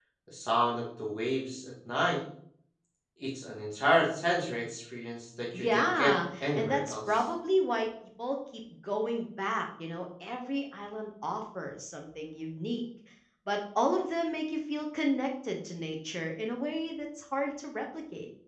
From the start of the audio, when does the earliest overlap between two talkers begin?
5.5 s

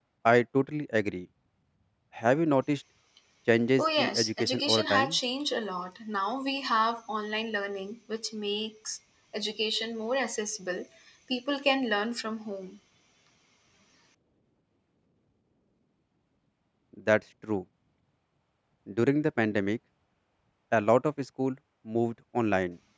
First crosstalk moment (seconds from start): 3.8 s

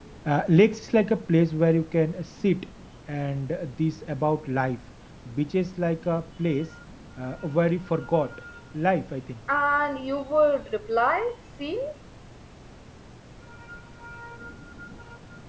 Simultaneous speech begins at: none

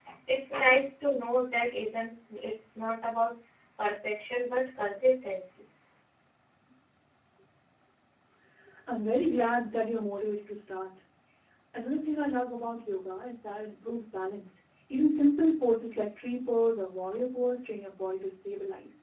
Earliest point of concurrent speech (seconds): none

